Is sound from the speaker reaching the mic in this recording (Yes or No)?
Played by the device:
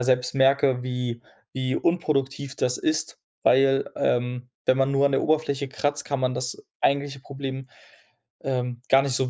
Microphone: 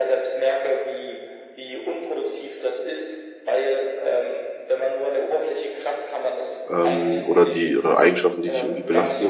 Yes